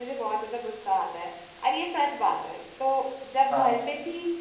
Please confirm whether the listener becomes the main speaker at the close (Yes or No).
No